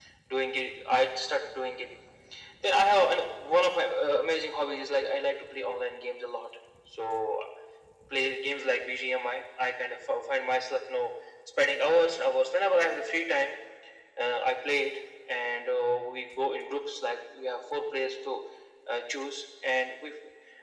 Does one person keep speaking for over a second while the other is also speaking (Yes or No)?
No